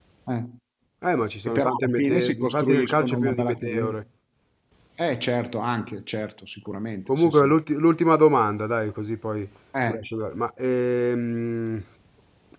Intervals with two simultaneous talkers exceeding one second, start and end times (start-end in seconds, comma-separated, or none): 1.5-3.9